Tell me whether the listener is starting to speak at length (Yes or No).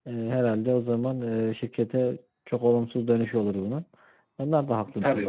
Yes